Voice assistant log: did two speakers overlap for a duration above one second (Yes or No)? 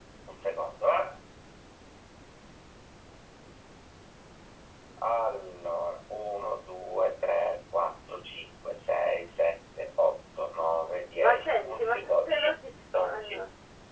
Yes